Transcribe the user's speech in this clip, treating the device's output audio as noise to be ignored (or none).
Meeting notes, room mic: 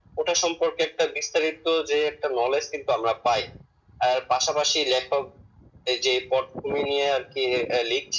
none